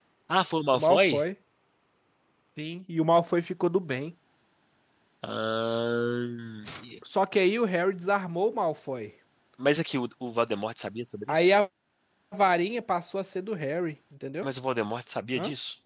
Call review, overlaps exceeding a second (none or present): none